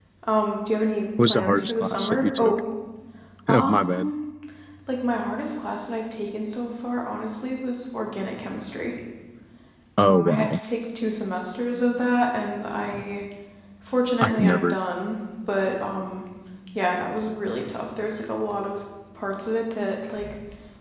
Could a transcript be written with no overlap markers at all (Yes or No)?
No